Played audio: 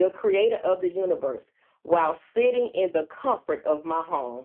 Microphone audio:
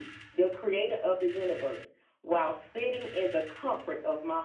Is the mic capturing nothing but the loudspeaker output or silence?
Yes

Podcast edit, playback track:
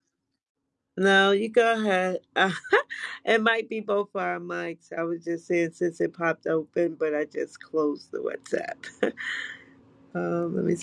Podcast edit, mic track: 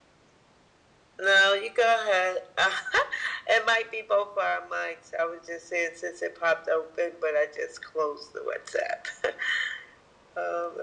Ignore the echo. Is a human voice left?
No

